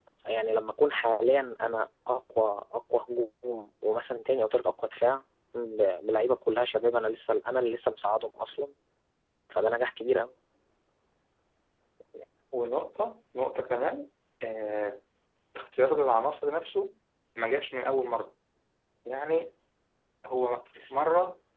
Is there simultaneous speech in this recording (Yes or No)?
No